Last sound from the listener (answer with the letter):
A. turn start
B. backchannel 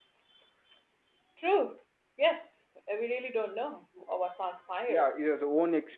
A